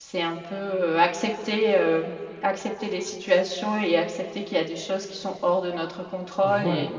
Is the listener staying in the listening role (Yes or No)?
No